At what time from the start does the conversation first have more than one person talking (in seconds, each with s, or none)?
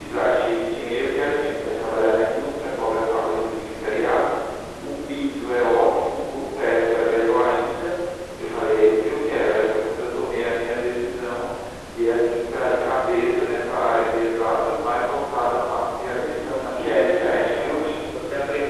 16.2 s